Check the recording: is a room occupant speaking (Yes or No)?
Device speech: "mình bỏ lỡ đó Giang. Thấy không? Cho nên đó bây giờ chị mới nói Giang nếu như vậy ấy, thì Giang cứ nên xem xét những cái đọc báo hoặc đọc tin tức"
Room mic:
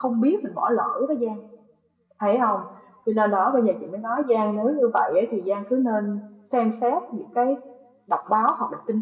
No